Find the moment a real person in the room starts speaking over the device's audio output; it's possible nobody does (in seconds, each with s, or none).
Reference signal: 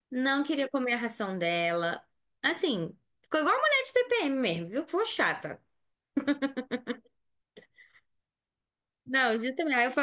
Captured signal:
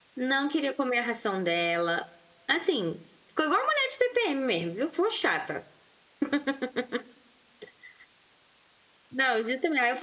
none